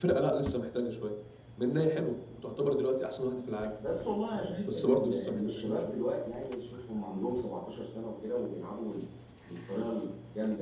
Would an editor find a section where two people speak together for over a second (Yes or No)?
Yes